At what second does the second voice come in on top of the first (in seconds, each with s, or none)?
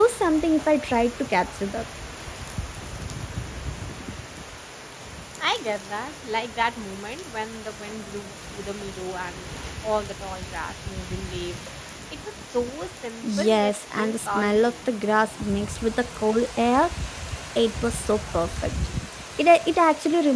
13.2 s